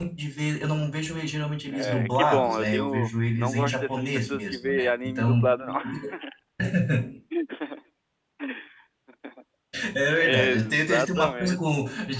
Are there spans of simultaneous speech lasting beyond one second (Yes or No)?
Yes